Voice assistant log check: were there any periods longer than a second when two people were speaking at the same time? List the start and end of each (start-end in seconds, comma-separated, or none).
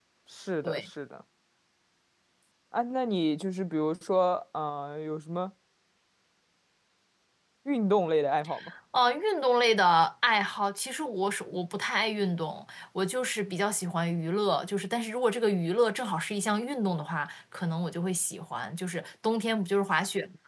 none